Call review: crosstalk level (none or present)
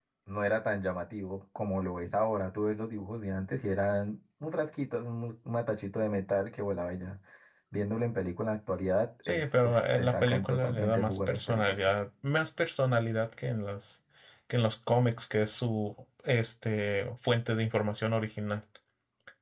present